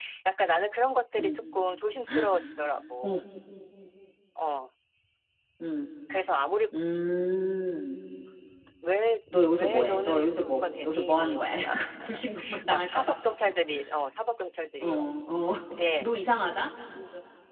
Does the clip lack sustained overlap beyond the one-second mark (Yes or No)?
No